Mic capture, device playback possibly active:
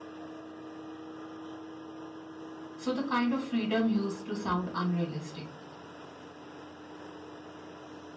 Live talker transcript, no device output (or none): so the kind of freedom used to sound unrealistic